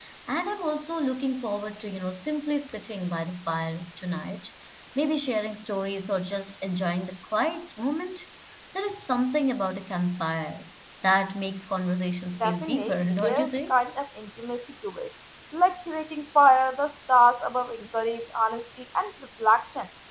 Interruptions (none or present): present